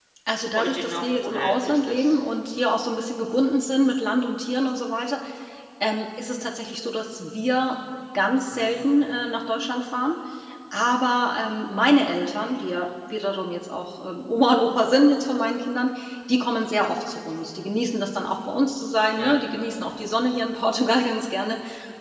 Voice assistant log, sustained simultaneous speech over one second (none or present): present